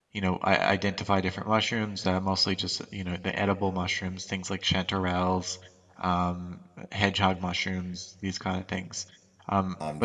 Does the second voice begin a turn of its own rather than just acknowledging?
No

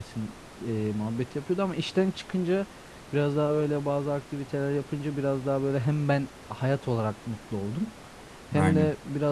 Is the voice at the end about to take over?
No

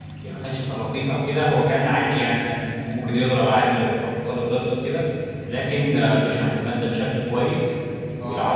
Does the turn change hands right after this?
No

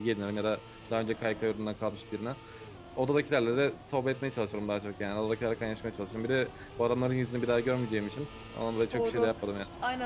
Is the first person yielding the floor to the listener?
Yes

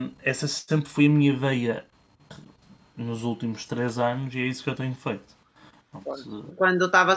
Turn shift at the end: Yes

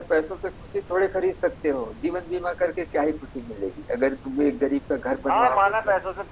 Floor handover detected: Yes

